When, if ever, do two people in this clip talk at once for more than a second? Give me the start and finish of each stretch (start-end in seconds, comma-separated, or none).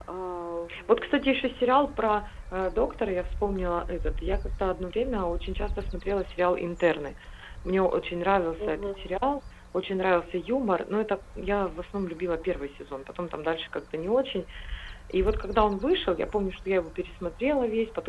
none